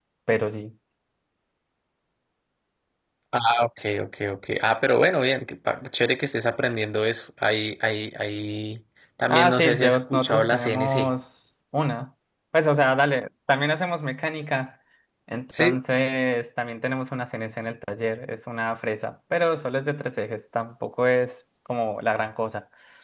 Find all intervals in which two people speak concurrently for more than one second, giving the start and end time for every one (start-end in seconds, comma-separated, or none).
9.3-11.1